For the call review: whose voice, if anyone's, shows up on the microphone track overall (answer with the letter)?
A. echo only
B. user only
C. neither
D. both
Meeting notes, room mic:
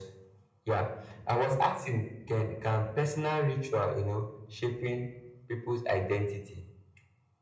A